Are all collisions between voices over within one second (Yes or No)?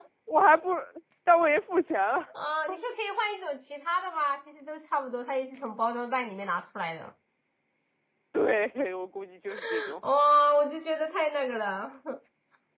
Yes